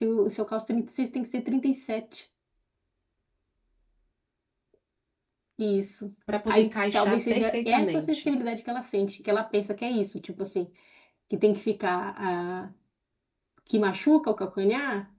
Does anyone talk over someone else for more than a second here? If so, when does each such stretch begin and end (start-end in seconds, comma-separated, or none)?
6.5-8.3